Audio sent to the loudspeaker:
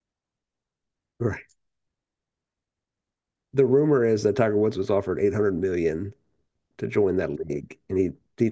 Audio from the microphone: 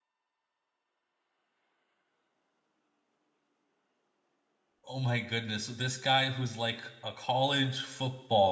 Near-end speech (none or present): present